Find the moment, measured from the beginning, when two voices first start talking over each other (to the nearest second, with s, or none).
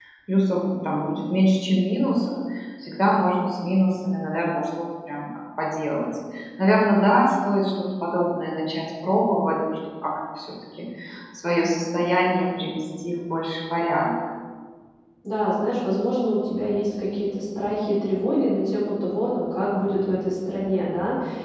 none